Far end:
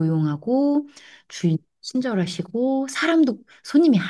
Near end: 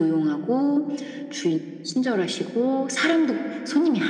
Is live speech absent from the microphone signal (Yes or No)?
Yes